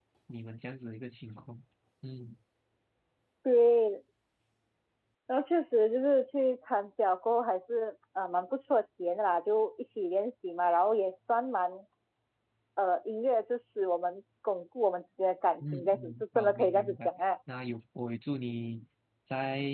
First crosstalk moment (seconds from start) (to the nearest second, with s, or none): 16 s